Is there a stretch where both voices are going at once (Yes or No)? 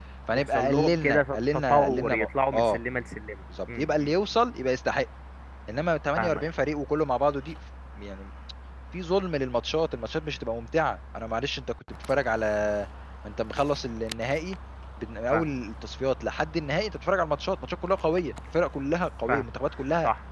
Yes